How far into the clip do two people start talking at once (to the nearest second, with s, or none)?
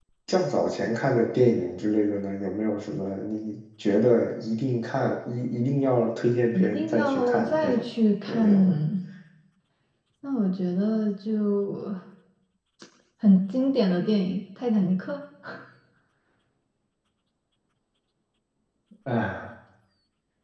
7 s